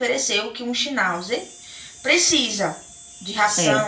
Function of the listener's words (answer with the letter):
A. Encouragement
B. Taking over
A